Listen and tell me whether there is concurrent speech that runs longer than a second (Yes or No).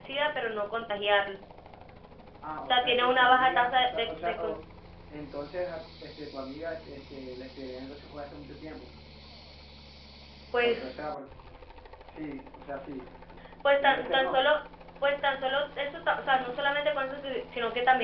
Yes